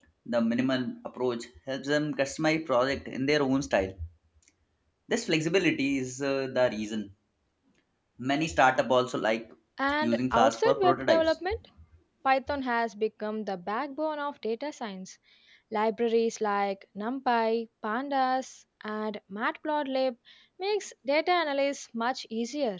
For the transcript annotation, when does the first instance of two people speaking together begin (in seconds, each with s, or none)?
10.0 s